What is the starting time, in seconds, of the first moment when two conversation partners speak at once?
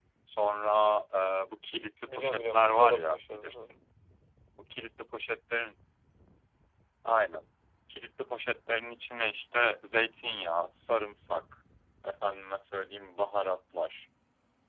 2.1 s

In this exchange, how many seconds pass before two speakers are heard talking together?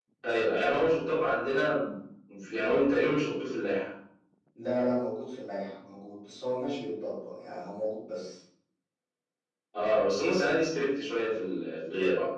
none

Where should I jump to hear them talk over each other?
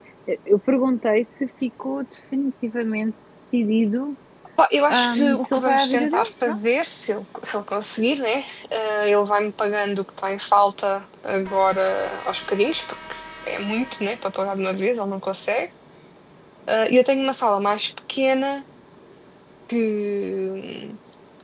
4.9 s

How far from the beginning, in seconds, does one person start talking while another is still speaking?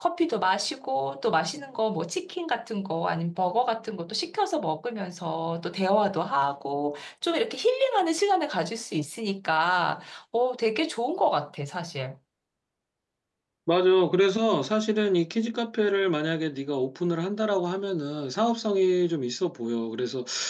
none

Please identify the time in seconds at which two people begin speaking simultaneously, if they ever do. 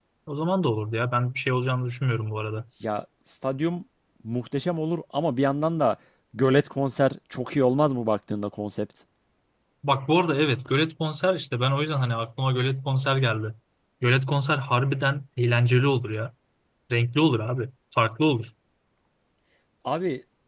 none

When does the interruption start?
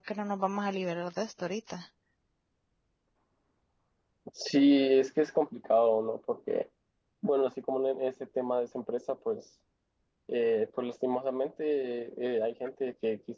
none

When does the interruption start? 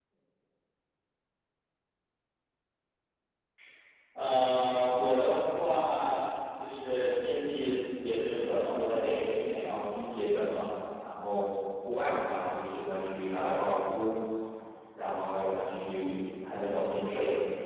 none

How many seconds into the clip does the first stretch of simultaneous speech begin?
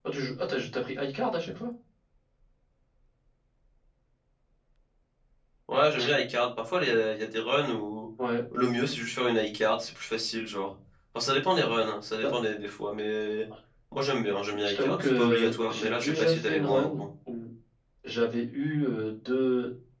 14.6 s

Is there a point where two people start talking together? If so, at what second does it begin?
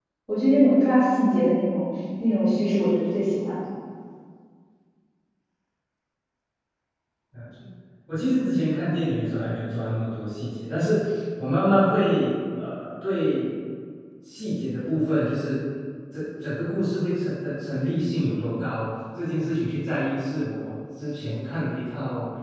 none

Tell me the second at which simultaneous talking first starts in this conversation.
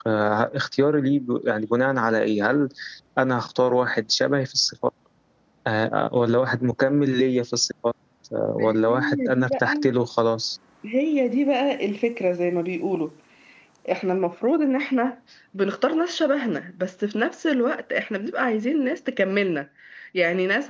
8.6 s

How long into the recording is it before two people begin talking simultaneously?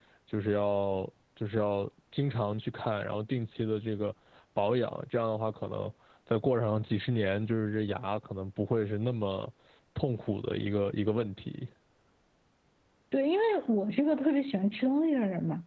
none

